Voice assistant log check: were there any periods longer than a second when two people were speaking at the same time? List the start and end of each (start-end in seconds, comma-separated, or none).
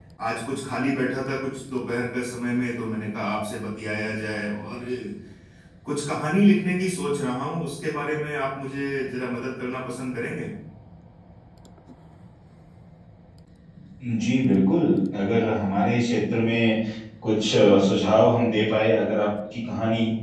none